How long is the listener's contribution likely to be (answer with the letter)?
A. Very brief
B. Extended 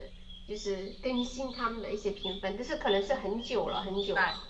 B